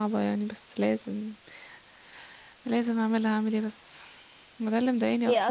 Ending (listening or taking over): listening